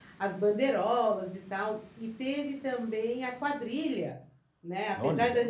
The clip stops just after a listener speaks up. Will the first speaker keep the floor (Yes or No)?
Yes